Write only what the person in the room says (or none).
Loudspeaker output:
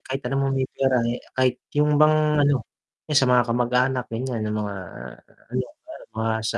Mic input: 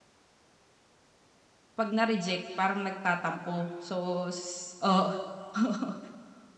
'pag na-reject, parang nagtatampo so s oo, oo